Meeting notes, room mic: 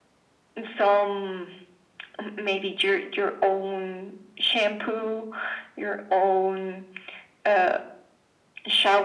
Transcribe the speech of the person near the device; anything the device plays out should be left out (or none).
none